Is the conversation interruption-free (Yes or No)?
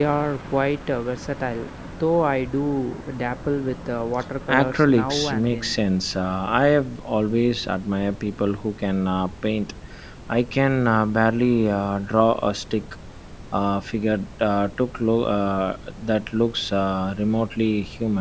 No